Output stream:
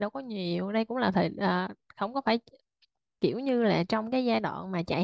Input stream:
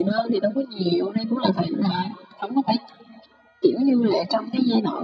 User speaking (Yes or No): No